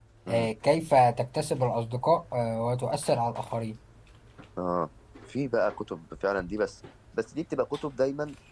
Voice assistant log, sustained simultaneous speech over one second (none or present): none